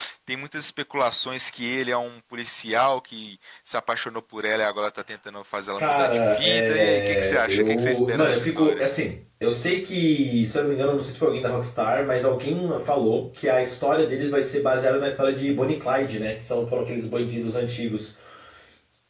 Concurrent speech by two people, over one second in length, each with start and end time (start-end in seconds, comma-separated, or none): 5.8-8.8